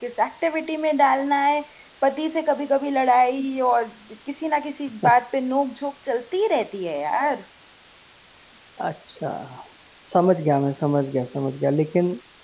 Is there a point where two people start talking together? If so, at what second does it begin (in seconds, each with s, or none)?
none